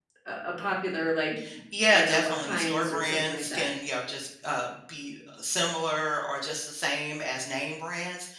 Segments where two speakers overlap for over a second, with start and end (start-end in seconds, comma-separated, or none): 1.9-3.8